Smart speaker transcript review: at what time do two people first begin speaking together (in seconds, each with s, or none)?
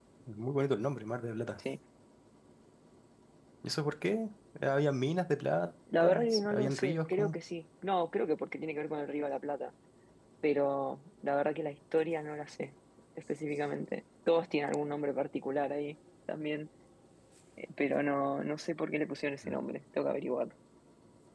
5.9 s